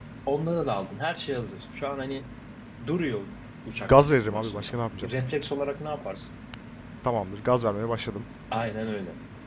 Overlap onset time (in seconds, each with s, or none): 3.8 s